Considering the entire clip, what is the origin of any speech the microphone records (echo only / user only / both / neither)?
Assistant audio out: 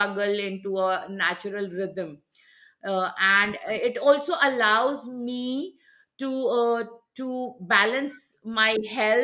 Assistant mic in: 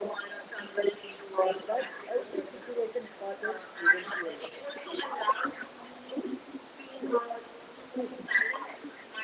both